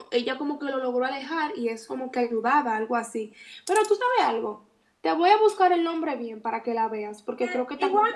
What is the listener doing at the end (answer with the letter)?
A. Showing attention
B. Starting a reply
B